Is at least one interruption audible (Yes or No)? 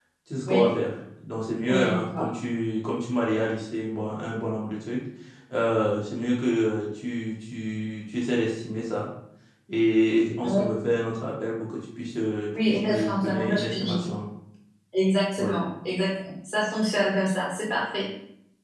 Yes